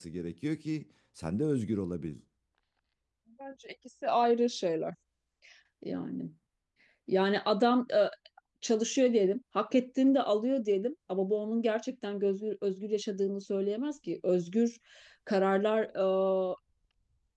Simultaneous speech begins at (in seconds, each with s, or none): none